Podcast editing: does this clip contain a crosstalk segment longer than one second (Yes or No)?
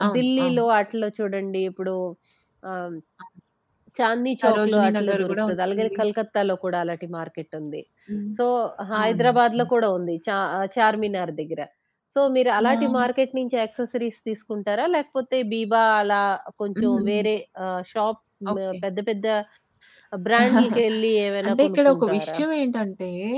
Yes